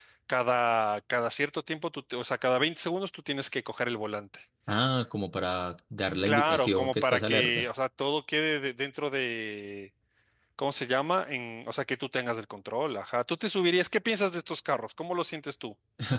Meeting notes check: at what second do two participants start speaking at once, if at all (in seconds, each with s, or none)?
6.3 s